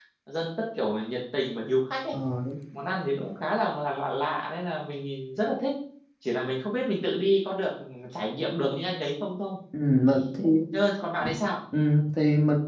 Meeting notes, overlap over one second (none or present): none